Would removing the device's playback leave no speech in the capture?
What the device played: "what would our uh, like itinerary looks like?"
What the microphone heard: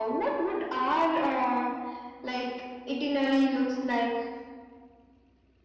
Yes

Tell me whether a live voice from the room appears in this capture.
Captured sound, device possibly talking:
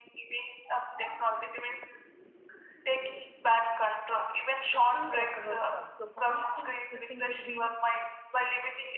Yes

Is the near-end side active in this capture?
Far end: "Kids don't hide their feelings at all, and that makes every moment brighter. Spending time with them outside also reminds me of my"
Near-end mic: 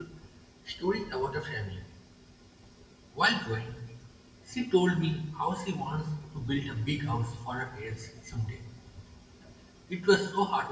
Yes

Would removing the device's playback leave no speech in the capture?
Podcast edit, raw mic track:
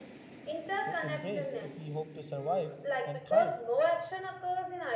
No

